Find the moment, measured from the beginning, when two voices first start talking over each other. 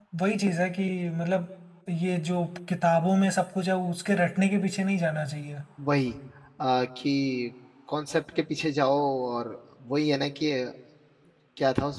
none

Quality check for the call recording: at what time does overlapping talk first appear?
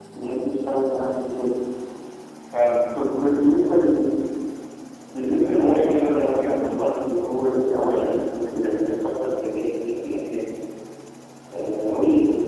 5.3 s

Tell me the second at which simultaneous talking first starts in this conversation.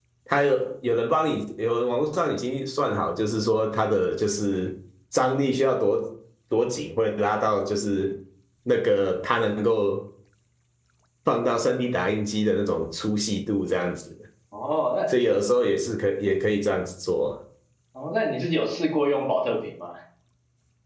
none

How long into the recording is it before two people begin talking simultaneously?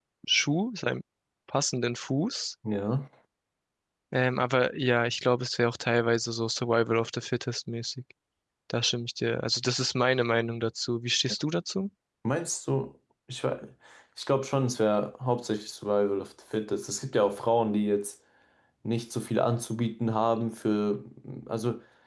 none

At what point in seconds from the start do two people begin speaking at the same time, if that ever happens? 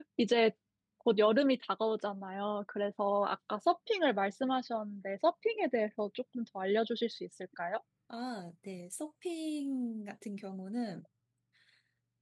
none

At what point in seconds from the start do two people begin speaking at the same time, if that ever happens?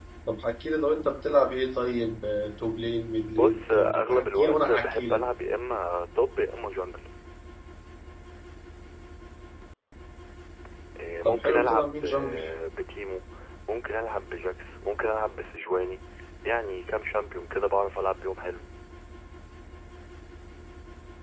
3.4 s

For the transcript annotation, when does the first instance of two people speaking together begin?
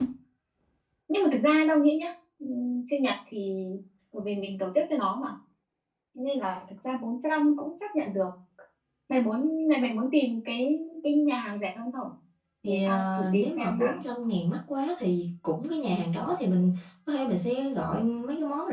12.6 s

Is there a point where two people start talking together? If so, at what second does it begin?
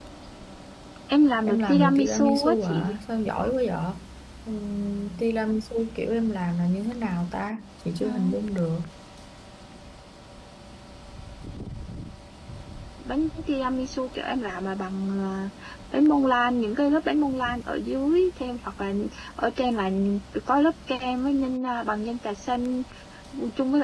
1.4 s

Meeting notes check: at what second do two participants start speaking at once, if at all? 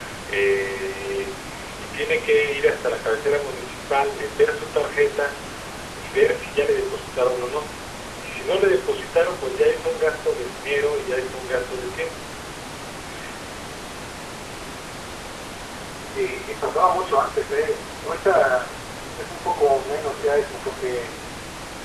none

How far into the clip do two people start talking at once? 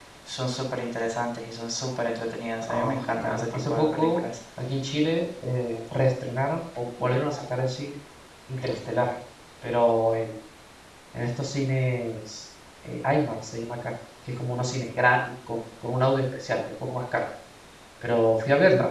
2.6 s

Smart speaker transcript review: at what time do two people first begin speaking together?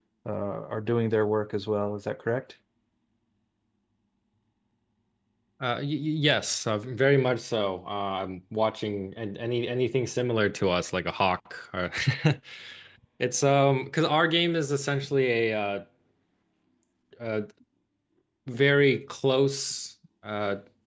none

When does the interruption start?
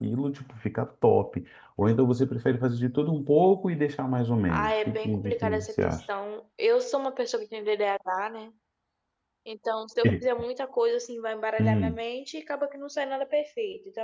4.5 s

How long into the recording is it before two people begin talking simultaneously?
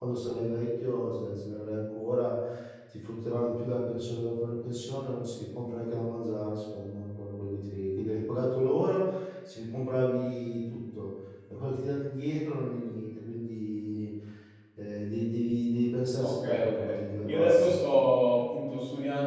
16.2 s

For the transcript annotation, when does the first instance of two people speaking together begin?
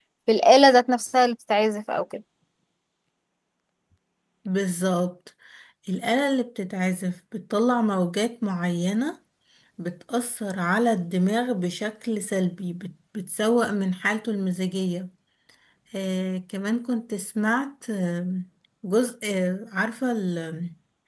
none

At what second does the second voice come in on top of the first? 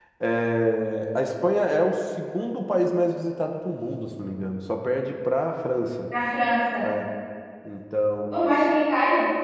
none

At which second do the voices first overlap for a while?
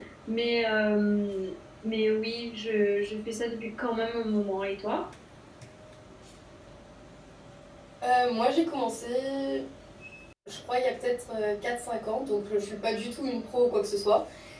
none

